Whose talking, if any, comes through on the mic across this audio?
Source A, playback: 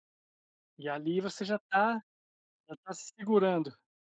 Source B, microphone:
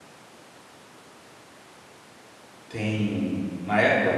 user only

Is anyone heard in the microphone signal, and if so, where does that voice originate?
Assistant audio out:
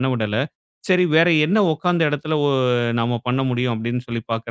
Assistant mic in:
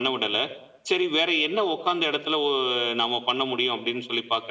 echo only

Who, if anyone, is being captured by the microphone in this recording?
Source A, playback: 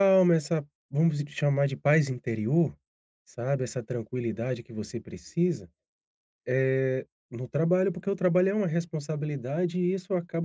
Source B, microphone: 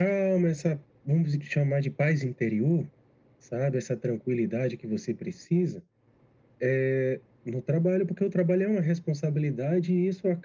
echo only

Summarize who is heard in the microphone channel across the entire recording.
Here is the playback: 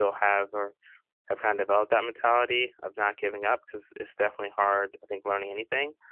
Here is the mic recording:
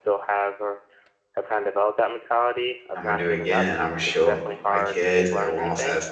both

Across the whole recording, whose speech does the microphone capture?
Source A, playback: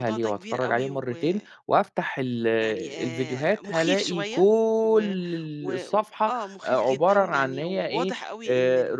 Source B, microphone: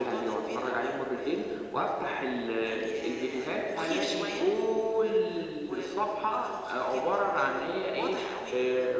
echo only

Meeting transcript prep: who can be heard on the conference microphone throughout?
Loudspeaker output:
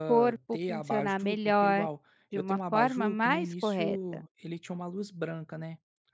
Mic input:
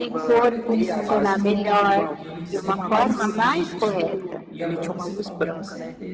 both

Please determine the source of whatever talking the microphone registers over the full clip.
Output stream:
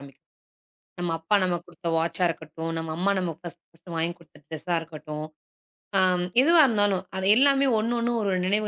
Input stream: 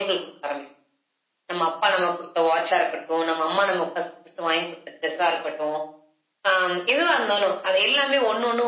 echo only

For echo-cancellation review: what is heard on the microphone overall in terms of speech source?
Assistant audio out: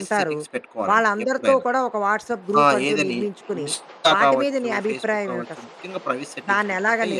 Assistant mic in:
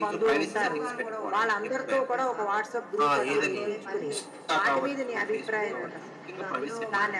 both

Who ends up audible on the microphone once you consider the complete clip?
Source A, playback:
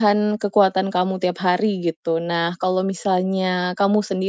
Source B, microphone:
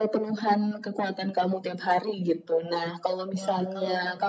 both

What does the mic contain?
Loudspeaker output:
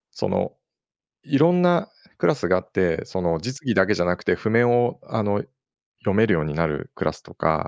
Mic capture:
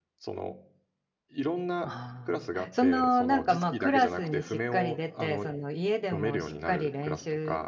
both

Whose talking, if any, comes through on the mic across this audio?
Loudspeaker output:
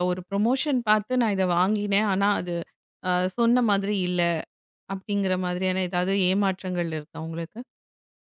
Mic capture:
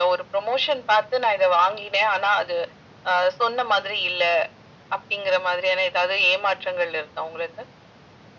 echo only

